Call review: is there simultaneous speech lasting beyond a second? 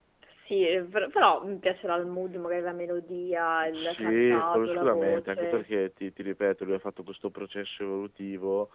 Yes, from 3.7 s

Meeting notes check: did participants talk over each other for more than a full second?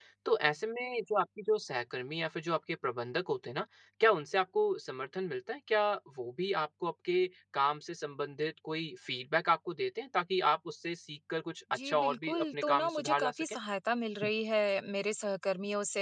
Yes, from 11.8 s

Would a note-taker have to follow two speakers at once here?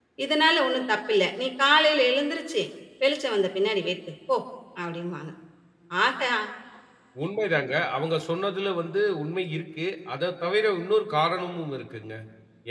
No

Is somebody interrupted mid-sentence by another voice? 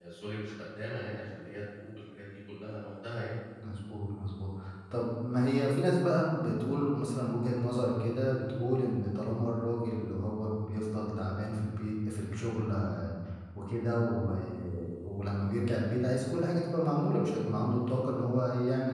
No

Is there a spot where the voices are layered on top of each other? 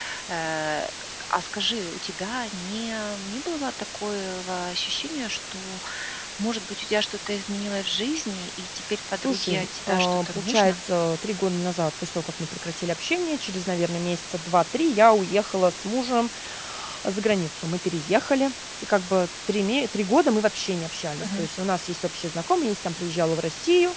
Yes, from 9.2 s

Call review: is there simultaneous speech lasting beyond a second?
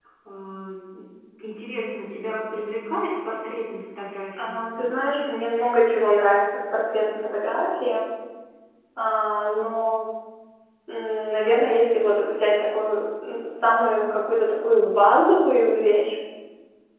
No

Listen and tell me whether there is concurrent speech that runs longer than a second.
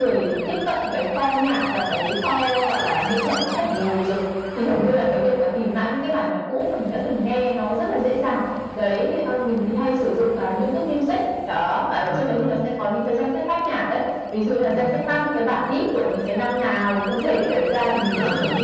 No

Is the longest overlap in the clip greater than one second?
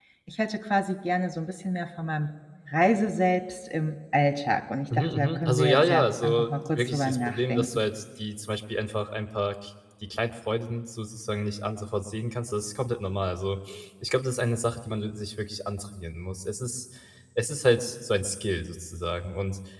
Yes, from 4.9 s

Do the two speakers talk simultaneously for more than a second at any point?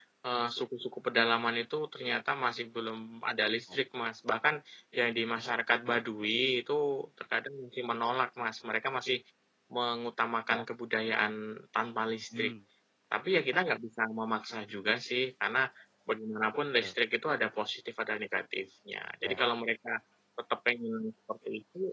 No

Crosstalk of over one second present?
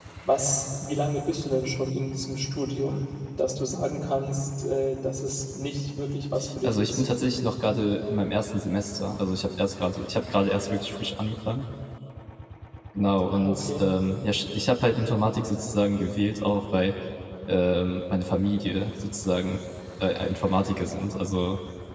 No

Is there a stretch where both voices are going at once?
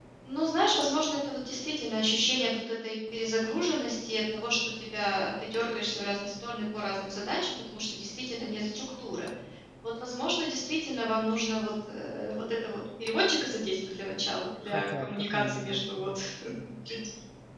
Yes, from 14.6 s

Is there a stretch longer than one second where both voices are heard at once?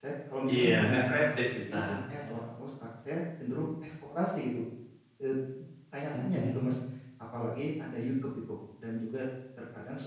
Yes, from 0.5 s

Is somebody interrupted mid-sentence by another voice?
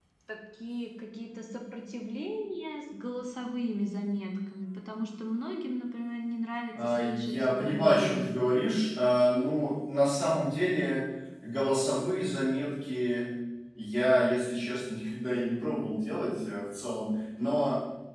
Yes, from 6.8 s

